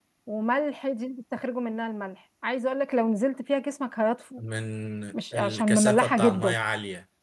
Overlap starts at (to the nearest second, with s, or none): 5 s